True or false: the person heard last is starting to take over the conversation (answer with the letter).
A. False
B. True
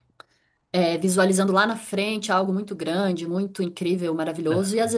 A